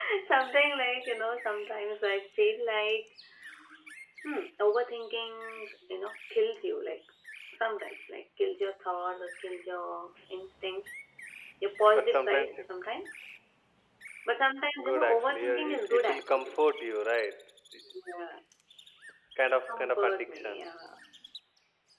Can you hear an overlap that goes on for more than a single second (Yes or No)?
Yes